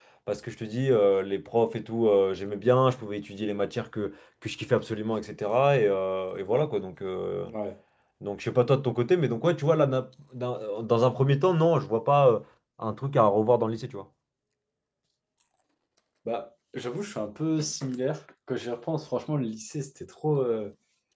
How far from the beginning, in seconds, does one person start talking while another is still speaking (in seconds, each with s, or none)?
none